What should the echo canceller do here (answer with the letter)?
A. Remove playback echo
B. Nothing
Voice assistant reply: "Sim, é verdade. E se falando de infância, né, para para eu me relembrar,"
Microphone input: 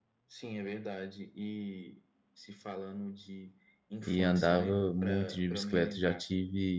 A